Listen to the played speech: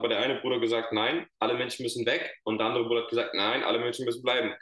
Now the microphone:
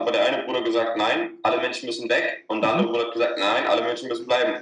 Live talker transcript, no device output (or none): Mhm.